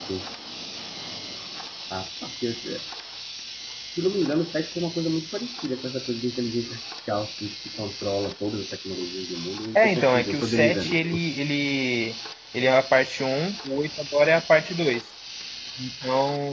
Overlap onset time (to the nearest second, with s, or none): 10 s